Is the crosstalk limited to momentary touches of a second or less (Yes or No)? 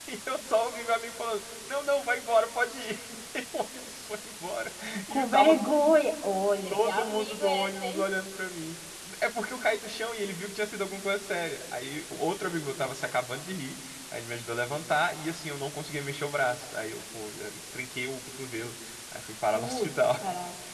No